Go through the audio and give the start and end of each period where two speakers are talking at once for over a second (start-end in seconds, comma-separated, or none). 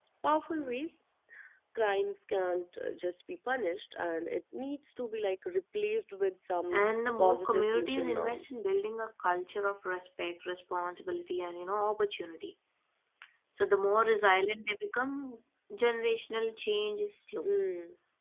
6.7-8.6